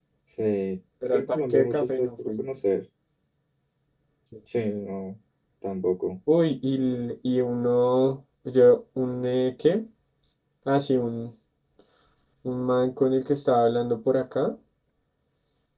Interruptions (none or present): present